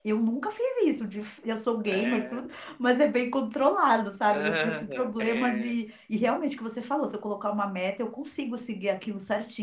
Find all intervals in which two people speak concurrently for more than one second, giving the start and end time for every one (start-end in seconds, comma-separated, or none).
4.3-5.7